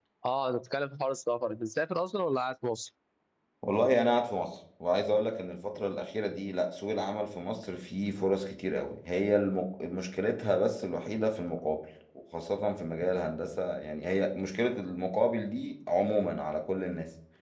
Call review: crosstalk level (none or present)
none